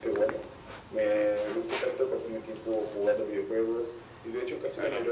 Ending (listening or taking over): listening